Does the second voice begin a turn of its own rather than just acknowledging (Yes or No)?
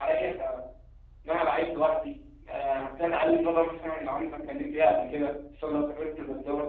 No